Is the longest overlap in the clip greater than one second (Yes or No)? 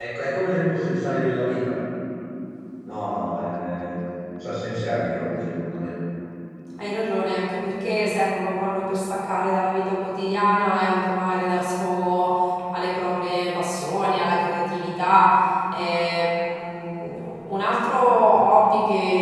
No